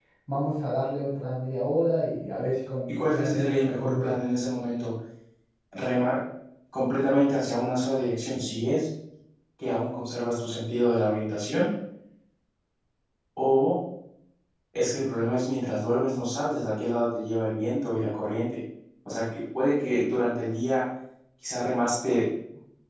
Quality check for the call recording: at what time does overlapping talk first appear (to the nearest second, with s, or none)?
3 s